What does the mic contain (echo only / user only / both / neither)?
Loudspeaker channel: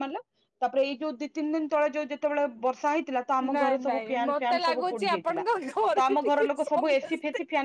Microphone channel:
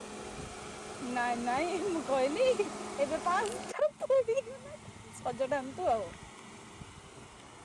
user only